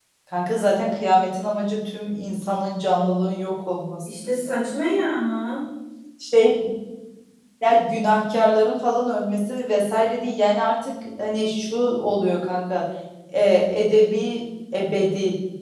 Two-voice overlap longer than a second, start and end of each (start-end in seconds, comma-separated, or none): none